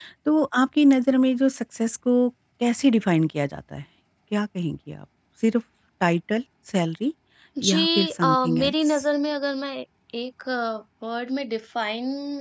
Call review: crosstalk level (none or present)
present